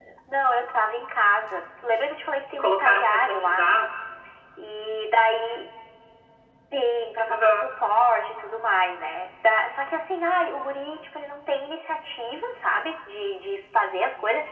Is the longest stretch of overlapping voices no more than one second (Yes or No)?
No